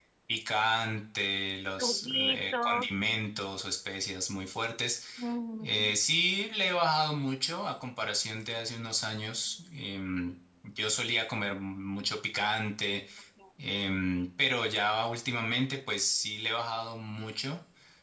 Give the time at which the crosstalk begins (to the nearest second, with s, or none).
2 s